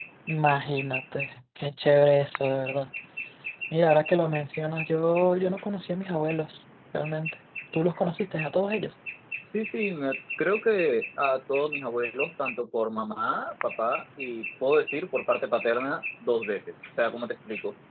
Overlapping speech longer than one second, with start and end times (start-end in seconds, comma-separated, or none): none